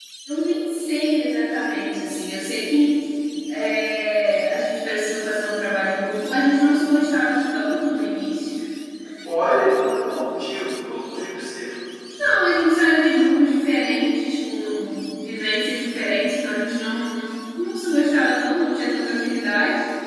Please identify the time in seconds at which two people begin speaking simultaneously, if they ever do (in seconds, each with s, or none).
none